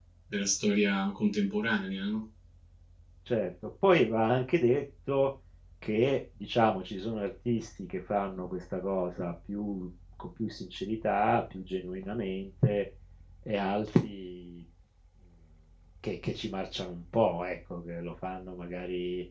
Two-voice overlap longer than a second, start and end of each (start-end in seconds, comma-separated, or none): none